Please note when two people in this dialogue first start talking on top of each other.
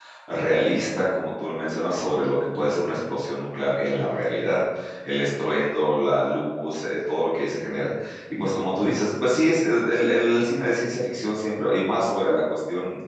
none

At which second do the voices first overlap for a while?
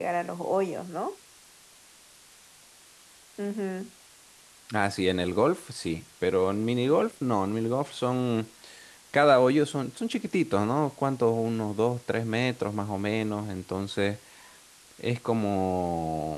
none

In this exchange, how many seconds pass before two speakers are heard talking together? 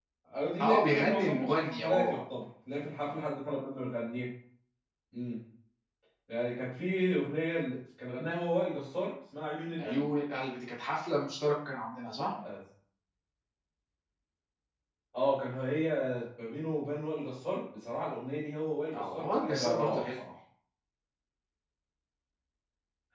0.6 s

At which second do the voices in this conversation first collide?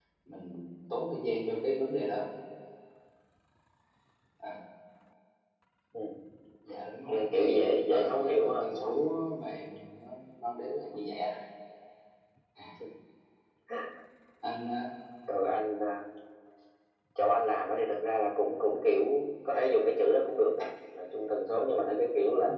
7.1 s

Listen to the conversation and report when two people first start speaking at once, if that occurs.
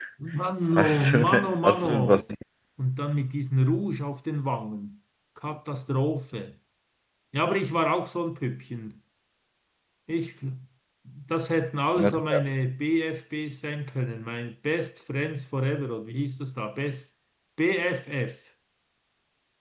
0.8 s

